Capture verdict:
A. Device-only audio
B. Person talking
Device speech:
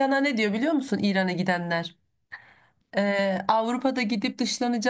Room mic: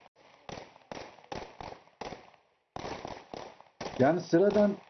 B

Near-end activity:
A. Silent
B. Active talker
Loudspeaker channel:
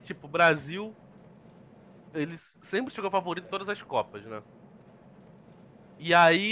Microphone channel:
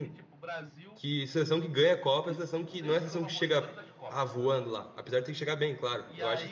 B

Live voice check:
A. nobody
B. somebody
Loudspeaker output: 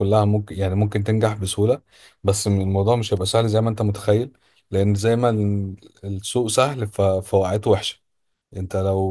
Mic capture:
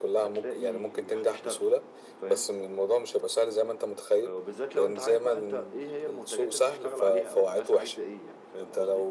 B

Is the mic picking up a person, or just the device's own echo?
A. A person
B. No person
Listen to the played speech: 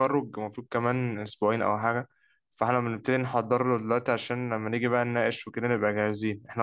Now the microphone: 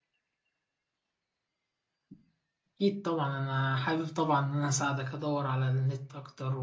A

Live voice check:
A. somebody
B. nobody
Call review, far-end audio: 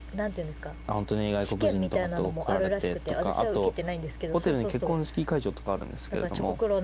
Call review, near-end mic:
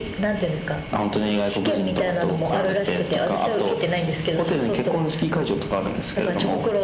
B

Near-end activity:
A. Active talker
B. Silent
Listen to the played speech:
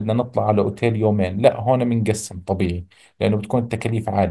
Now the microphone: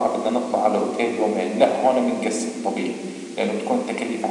B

